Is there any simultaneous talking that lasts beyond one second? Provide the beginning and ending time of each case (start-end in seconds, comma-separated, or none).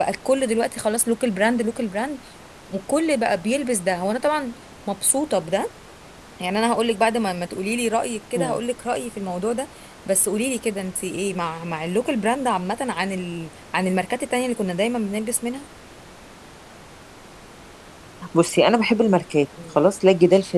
none